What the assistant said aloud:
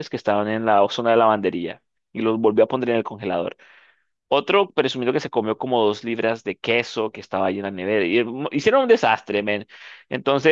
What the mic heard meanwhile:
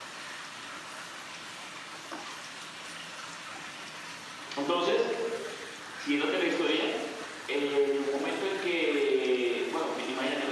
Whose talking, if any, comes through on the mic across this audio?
user only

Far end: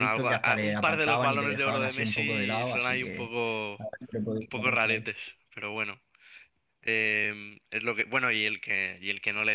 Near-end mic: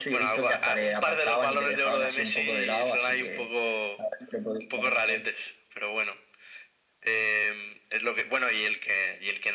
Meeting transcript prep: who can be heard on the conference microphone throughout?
echo only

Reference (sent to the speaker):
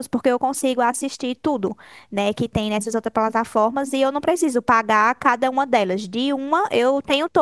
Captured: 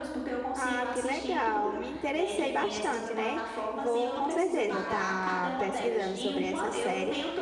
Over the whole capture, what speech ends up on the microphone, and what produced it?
both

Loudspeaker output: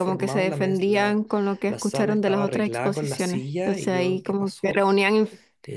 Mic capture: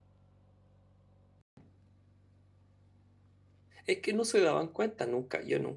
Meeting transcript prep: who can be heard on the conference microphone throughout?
user only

